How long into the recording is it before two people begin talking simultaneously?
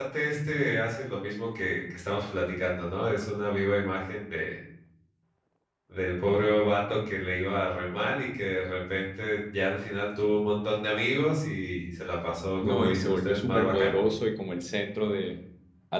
12.6 s

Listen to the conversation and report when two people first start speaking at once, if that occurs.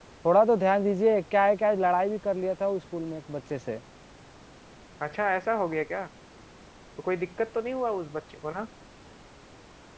none

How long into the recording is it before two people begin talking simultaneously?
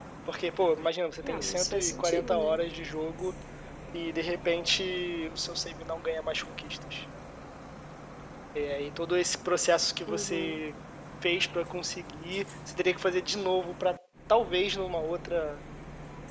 1.2 s

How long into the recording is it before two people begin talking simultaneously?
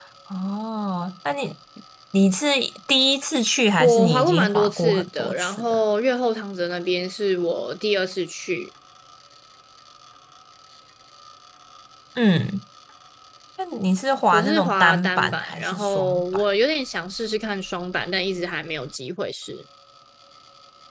3.8 s

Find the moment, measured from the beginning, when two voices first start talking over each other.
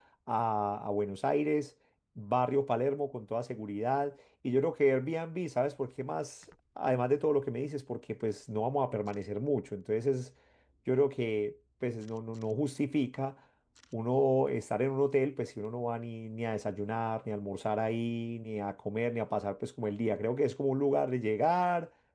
none

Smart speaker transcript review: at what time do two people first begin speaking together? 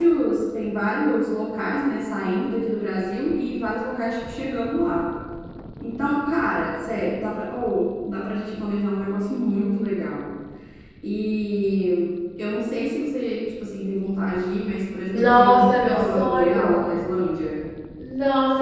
15.1 s

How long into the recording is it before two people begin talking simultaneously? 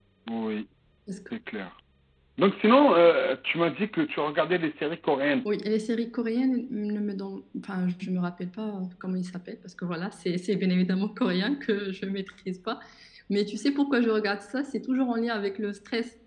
none

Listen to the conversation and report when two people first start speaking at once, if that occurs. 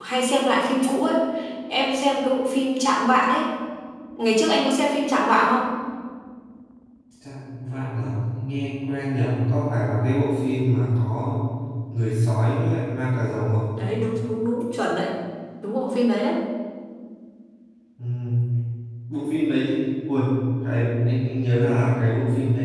none

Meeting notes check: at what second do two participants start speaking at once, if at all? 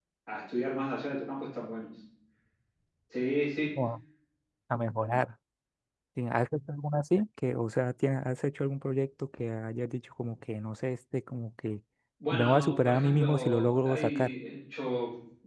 12.3 s

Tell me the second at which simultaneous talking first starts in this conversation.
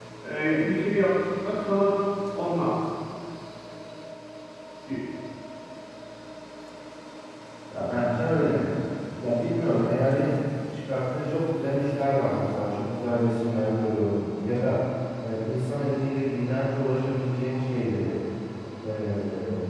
none

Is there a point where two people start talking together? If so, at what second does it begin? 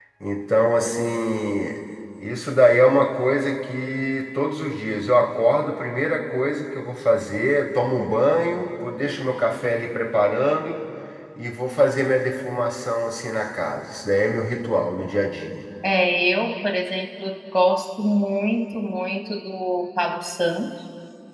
none

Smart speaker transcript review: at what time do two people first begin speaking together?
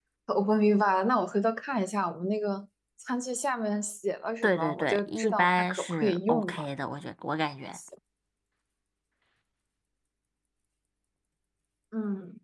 4.4 s

